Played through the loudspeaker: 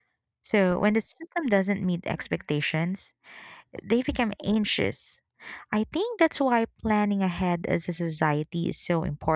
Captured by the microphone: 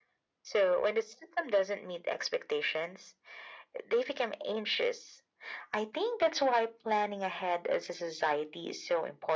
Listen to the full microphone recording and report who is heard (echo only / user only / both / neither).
echo only